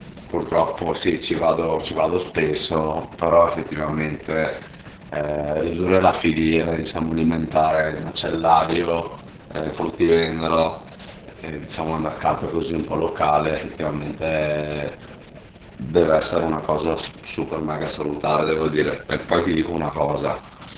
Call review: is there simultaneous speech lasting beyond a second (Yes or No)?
No